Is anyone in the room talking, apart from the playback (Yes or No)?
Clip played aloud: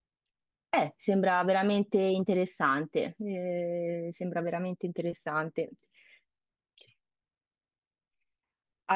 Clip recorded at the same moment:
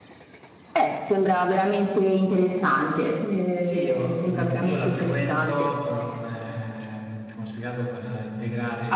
Yes